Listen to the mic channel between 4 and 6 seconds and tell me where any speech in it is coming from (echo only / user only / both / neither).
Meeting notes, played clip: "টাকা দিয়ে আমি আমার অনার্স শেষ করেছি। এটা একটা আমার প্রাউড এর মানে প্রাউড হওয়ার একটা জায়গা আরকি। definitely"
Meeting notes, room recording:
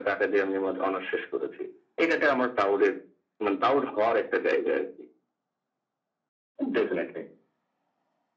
echo only